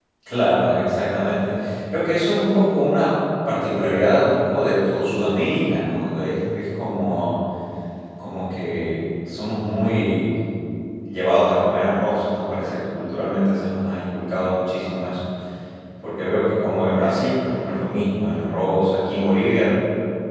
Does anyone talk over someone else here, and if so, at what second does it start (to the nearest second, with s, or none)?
none